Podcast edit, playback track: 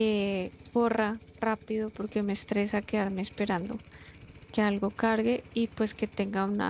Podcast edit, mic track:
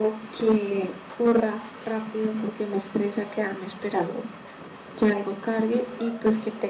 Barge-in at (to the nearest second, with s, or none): none